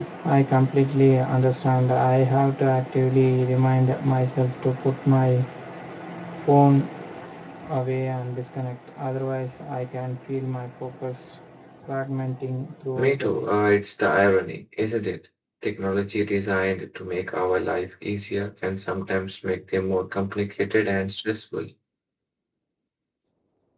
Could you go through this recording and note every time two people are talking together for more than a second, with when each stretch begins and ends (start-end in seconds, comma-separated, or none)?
none